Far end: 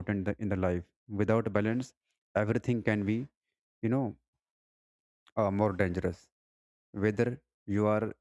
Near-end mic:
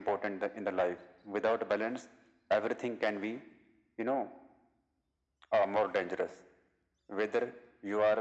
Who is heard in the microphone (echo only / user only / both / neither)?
echo only